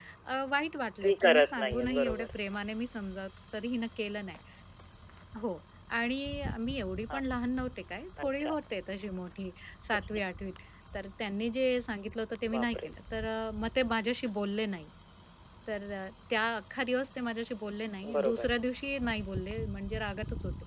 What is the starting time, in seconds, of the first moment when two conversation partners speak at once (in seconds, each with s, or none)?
1.0 s